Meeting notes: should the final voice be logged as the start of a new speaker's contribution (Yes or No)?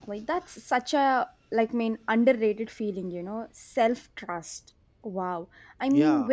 No